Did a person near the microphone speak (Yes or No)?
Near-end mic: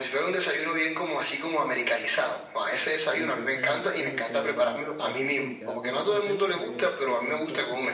Yes